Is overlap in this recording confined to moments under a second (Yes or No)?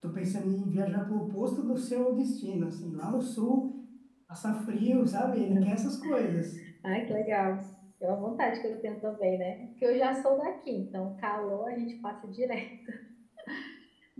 Yes